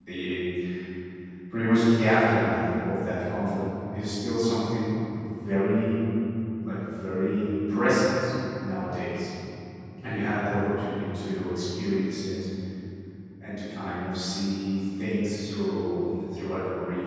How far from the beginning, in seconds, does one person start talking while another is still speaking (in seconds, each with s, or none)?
none